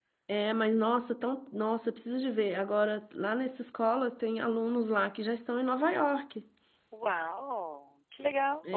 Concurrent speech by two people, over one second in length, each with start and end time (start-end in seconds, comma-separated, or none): none